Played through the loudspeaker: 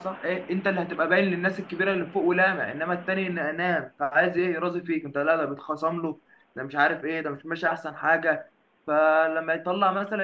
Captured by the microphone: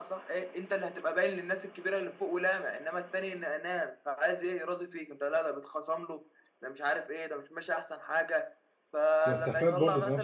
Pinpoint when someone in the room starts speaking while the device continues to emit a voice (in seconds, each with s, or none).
9.2 s